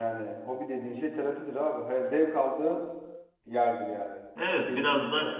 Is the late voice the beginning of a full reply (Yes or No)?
Yes